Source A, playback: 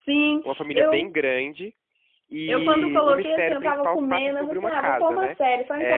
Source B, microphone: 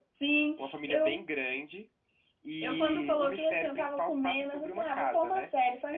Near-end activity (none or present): none